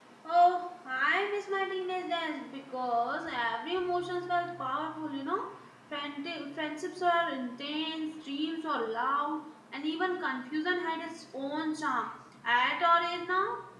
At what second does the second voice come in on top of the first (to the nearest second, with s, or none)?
none